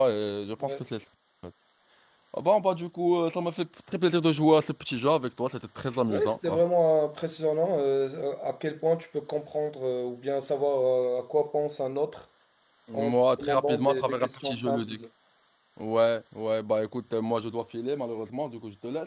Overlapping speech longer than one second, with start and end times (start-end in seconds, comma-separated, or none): 12.9-15.0